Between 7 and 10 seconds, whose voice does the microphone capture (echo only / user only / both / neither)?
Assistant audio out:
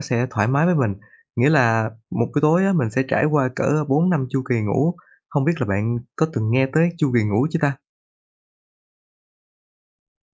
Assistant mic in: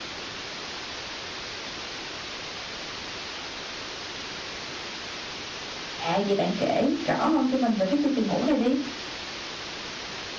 user only